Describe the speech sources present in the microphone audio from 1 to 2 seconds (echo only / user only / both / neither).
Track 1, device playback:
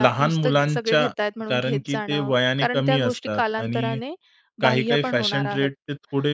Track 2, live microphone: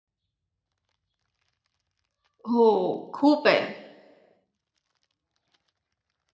neither